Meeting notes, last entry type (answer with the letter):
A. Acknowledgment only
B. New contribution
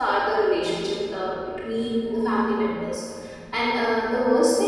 A